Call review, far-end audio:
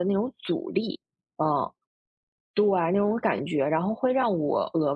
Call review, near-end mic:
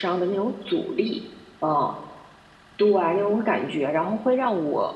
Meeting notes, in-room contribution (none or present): none